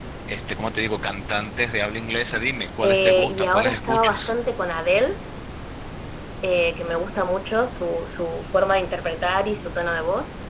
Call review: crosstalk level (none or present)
present